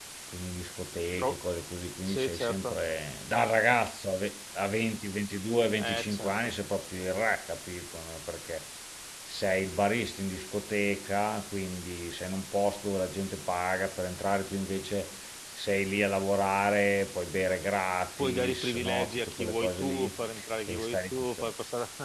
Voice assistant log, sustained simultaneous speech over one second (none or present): present